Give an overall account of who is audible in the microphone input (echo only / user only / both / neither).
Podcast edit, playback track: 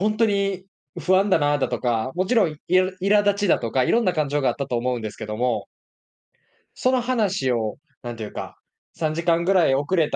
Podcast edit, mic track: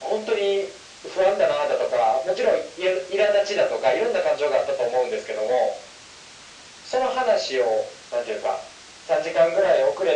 echo only